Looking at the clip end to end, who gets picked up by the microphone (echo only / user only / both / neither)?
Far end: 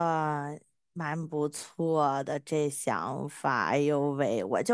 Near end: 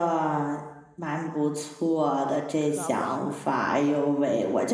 both